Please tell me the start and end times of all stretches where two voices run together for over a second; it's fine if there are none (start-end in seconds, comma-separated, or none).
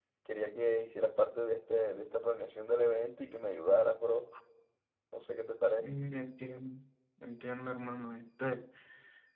none